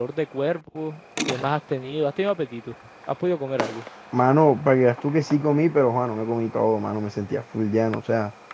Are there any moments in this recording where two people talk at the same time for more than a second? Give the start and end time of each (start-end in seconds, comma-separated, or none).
none